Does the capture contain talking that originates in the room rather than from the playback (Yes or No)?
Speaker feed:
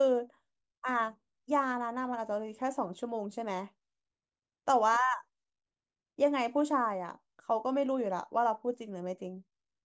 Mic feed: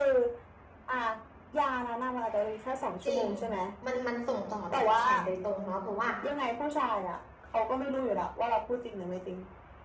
Yes